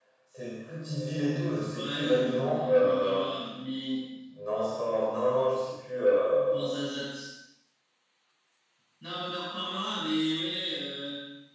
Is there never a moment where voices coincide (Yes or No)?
No